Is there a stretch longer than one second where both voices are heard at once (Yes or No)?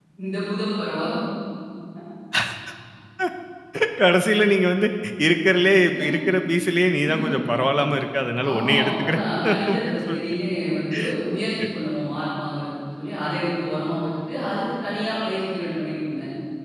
Yes